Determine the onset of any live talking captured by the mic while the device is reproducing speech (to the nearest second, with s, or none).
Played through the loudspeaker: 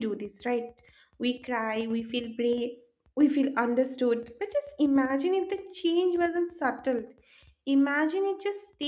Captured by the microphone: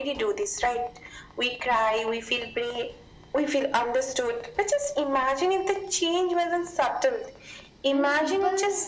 8 s